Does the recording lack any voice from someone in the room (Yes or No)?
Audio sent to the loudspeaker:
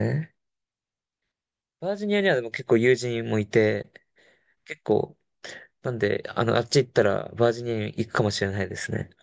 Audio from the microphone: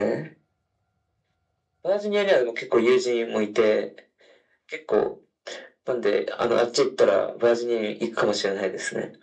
Yes